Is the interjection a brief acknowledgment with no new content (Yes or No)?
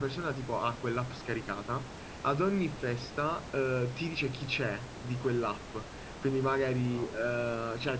Yes